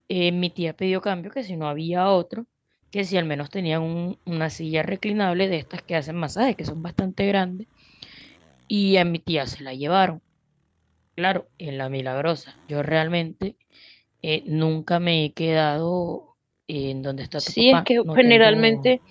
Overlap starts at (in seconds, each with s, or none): 17.4 s